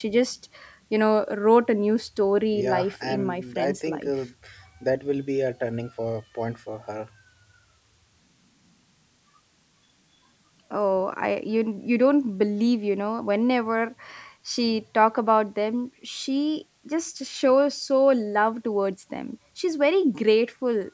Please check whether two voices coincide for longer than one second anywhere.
Yes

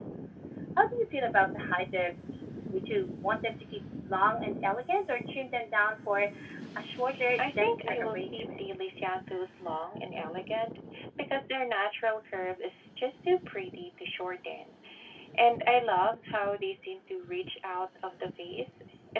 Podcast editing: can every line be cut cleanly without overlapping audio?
No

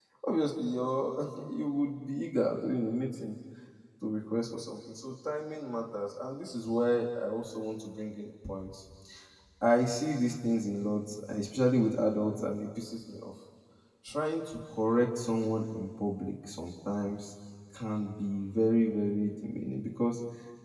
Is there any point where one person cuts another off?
No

